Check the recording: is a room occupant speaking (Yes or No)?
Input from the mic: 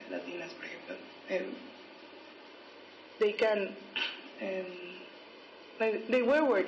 No